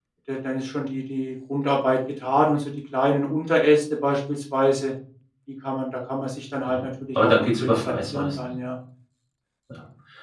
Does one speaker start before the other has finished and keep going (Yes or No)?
Yes